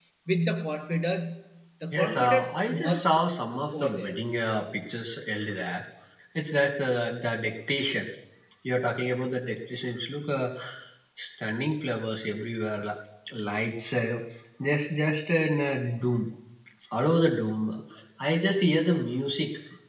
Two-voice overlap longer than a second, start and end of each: 1.9-3.1

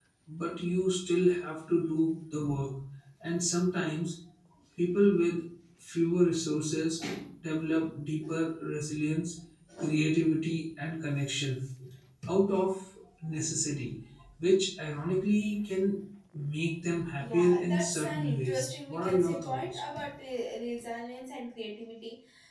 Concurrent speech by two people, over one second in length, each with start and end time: 17.2-19.8

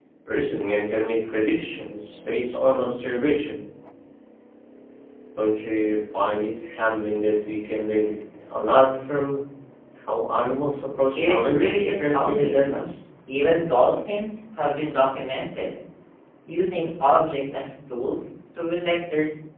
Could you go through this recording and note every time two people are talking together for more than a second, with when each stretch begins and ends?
11.2-12.7

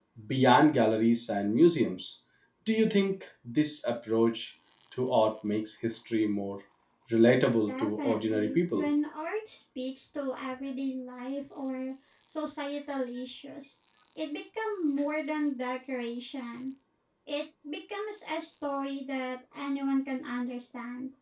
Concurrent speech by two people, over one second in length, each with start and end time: 7.7-8.9

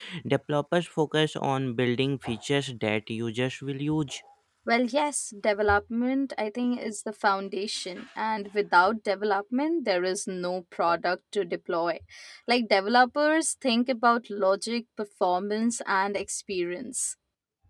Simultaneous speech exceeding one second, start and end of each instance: none

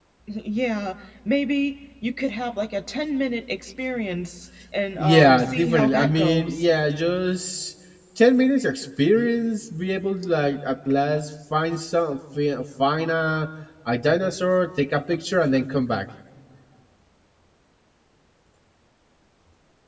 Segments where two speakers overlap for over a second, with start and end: 5.0-6.6

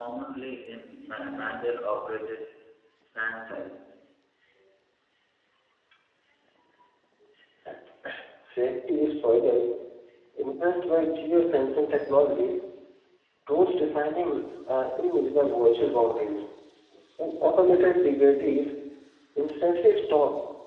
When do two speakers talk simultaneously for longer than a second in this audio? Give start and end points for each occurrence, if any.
none

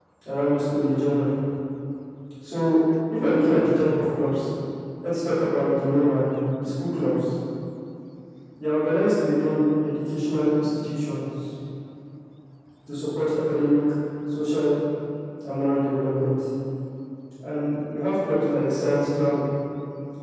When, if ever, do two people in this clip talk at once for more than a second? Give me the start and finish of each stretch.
none

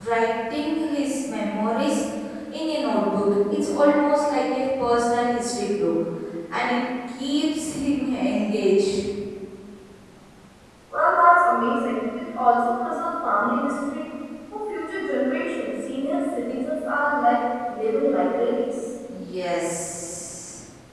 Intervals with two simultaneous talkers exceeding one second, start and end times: none

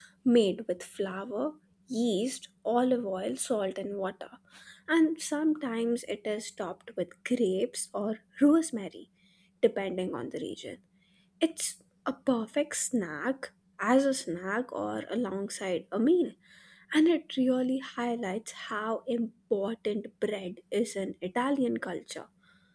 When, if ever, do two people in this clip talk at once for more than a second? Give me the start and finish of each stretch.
none

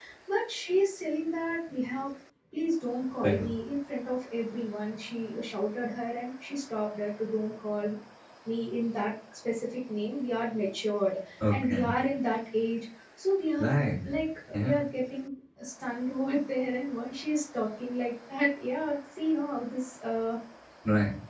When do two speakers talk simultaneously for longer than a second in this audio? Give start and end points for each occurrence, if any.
none

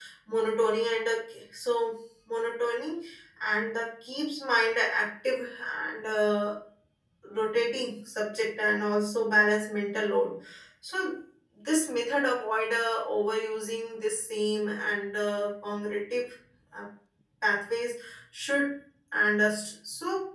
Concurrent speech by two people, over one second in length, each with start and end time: none

